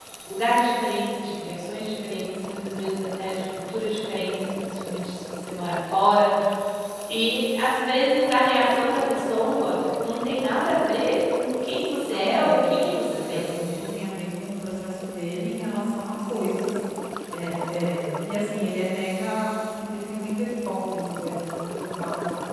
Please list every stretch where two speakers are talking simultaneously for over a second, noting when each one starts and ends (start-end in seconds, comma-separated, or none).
12.1-13.5